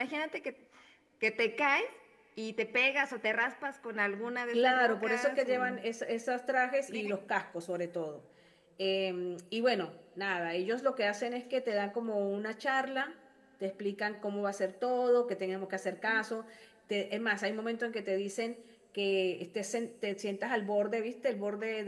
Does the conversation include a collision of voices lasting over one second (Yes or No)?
Yes